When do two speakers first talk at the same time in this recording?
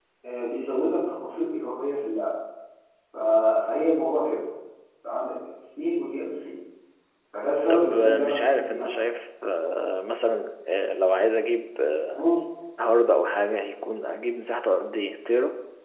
8 s

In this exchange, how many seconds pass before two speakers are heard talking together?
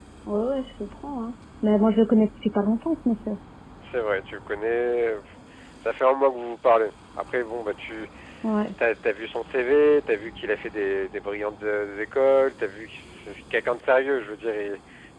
none

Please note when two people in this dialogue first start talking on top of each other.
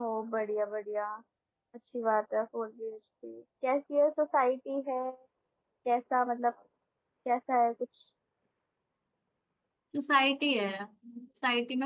none

